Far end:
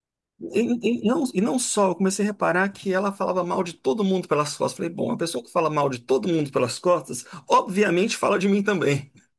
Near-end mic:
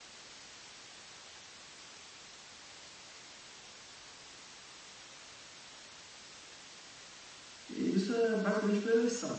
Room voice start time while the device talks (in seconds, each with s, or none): 7.7 s